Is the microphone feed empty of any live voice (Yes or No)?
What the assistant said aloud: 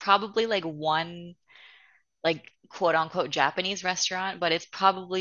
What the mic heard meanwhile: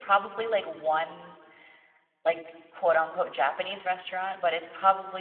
Yes